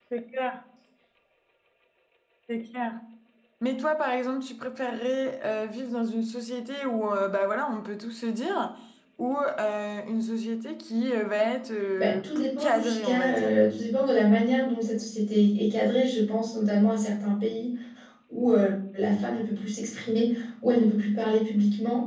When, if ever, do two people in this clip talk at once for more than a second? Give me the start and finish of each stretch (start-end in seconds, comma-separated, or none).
12.0-13.5